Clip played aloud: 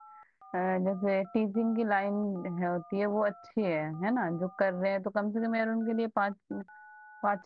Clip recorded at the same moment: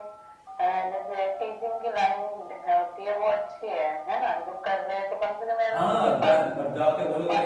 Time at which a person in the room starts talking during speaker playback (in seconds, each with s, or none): 5.7 s